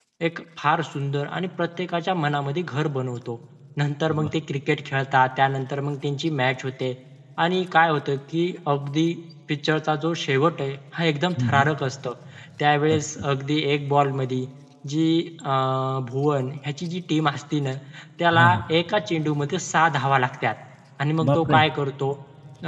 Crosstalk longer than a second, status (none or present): none